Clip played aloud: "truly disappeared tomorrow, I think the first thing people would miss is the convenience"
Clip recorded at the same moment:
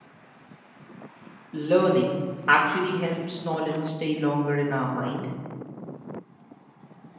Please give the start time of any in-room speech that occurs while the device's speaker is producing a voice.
1.5 s

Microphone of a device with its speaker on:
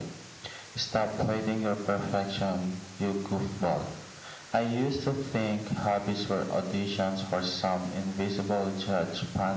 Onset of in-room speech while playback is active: none

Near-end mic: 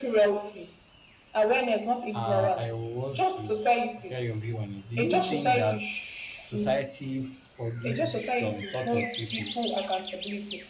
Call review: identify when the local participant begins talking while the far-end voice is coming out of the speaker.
2.1 s

